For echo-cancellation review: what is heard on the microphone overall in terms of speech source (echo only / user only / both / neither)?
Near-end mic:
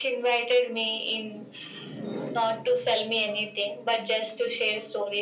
echo only